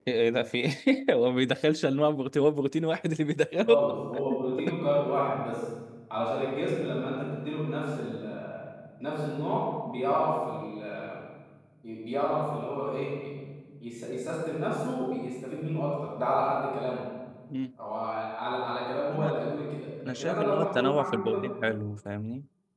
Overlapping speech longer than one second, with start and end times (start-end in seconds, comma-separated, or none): 20.1-21.4